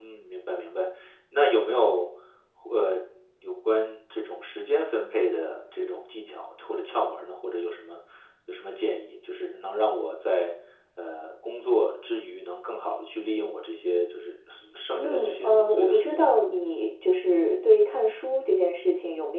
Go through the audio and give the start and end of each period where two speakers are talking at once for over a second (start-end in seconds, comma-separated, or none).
15.0-16.3